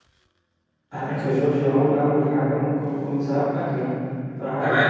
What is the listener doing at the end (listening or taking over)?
taking over